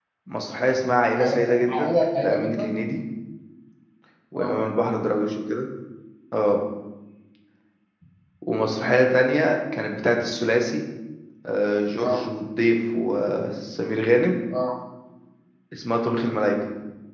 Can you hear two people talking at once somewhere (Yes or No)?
Yes